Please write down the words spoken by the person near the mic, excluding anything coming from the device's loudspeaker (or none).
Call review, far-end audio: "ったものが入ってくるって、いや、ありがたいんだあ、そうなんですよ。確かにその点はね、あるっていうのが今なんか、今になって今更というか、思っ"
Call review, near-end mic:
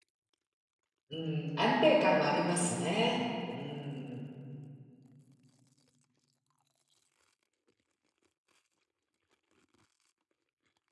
うん、安定感はありますね。うん。